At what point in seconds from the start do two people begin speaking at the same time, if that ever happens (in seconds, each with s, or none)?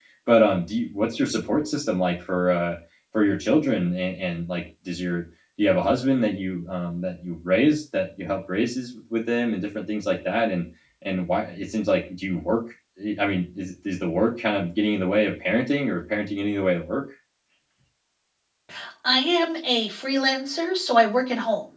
none